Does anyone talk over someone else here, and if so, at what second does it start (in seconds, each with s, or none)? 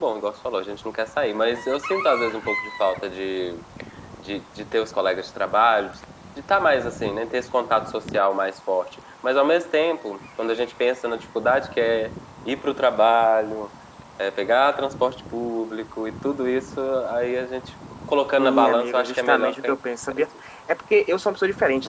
18.4 s